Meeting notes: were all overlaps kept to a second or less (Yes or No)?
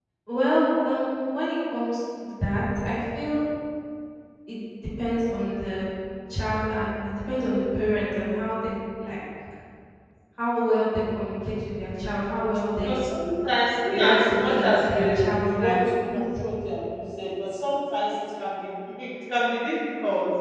No